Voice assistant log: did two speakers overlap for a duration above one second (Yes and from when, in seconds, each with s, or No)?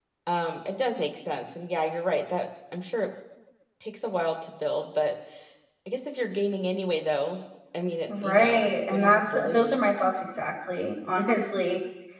Yes, from 8.1 s